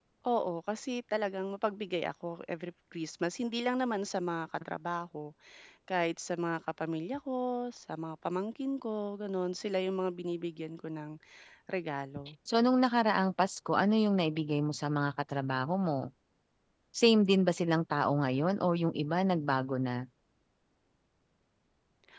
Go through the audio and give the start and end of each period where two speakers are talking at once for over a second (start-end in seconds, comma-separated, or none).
none